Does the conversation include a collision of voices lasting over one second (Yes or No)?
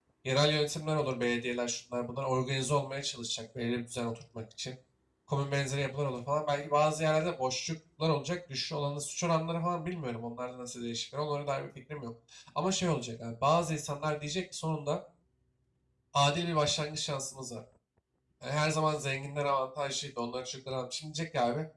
No